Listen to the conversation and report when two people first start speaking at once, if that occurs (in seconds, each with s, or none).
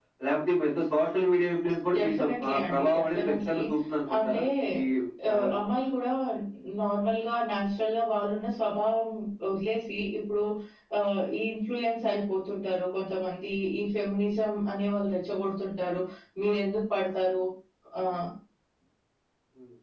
2.0 s